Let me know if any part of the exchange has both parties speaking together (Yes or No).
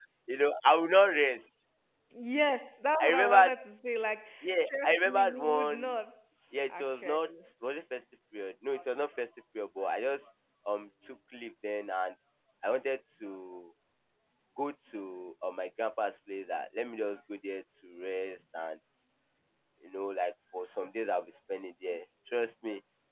Yes